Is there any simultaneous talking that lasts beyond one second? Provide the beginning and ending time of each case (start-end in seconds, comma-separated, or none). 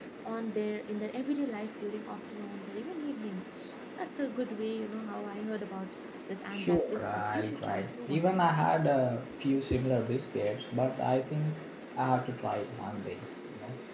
6.5-8.5